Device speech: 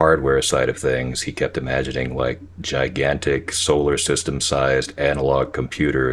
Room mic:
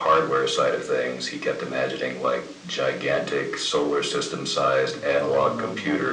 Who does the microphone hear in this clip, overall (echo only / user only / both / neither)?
both